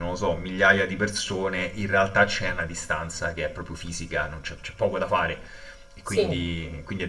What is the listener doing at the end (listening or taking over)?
listening